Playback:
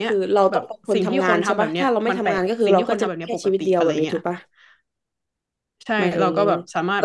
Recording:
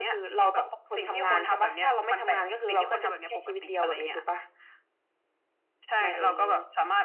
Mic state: echo only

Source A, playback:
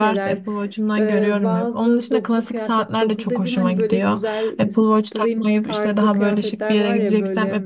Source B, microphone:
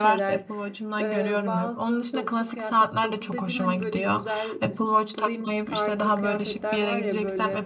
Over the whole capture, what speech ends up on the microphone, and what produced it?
echo only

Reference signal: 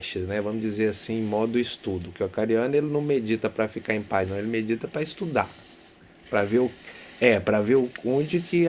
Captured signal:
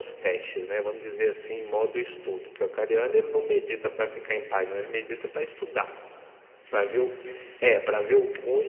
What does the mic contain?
echo only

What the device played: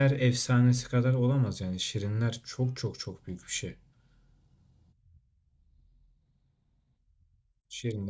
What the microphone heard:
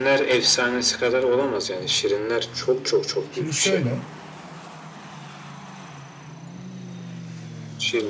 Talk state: both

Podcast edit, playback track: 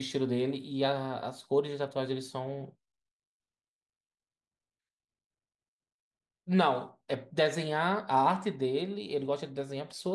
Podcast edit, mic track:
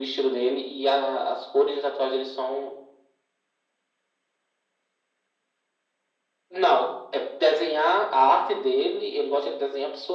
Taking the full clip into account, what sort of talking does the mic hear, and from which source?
echo only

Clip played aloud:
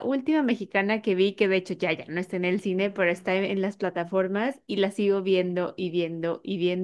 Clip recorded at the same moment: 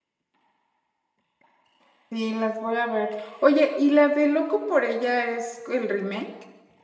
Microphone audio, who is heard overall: user only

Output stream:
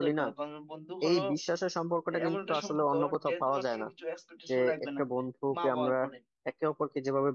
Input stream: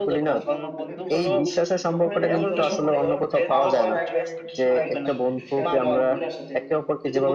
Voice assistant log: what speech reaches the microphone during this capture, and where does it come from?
both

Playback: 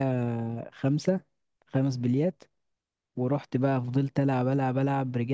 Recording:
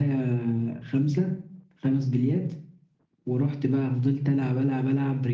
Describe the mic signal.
echo only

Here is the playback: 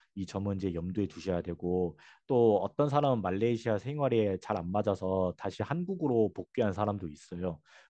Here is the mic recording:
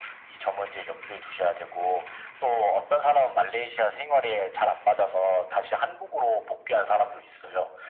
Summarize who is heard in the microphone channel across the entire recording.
echo only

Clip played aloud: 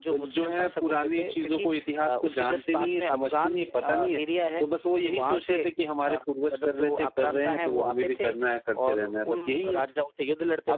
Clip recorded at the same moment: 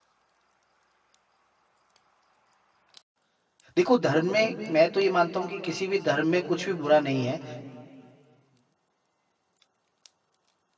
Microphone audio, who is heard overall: user only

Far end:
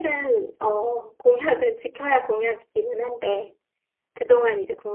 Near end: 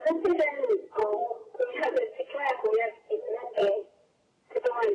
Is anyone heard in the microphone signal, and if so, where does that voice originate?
echo only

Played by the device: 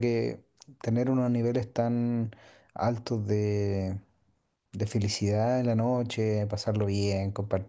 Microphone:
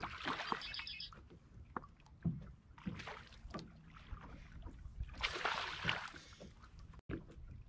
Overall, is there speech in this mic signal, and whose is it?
neither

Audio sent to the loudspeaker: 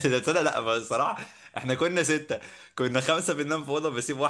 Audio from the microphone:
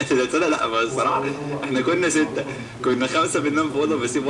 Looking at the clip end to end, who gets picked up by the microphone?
both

